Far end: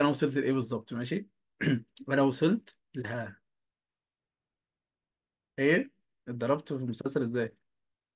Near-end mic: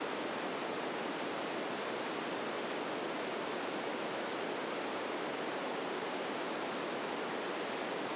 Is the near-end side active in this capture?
No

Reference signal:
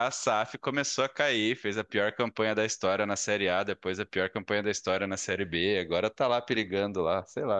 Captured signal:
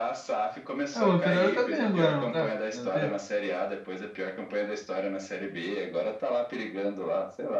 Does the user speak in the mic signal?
Yes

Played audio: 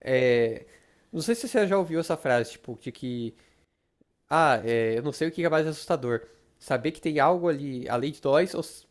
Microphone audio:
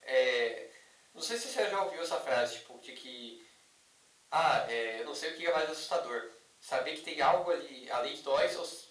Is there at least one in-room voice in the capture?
No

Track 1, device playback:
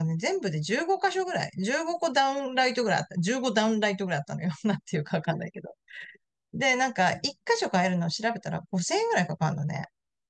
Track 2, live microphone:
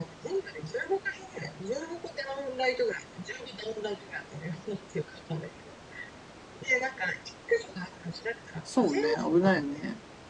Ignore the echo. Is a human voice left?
Yes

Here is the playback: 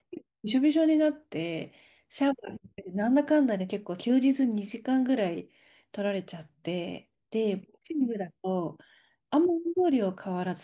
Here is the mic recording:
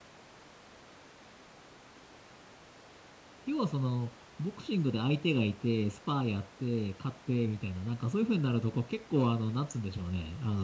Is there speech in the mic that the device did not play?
Yes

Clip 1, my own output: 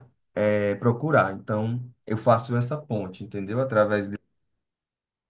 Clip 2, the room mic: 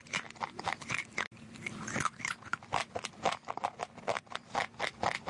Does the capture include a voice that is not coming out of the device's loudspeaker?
No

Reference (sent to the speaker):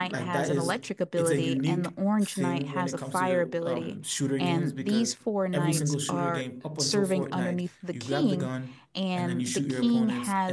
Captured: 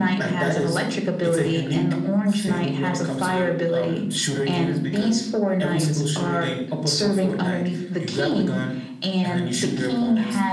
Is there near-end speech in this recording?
No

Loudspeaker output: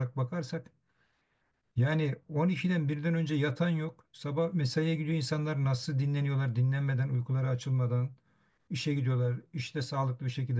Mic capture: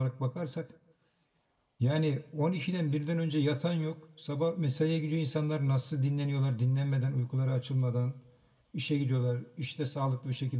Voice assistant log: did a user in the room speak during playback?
No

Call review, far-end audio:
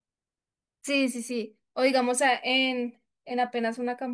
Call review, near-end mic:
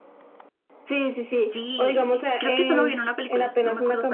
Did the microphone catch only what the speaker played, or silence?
No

